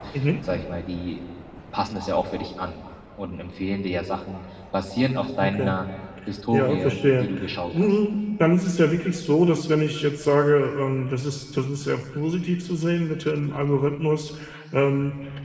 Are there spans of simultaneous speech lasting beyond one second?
Yes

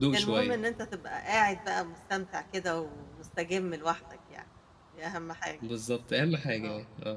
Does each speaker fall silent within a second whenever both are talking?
Yes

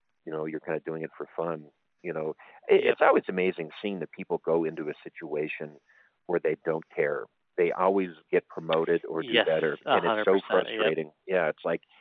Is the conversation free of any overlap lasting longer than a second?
No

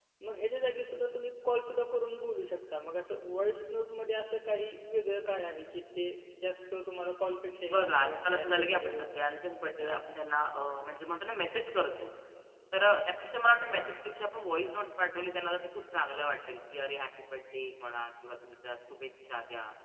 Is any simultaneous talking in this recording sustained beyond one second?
Yes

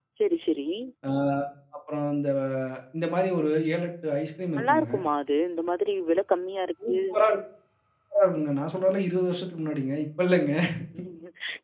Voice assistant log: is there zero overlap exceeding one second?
Yes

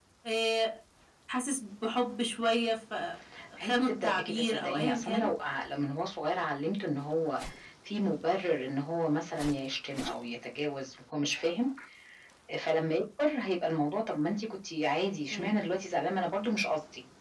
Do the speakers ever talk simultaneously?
Yes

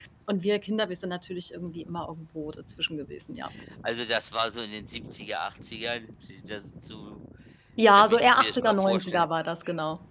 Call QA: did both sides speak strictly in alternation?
No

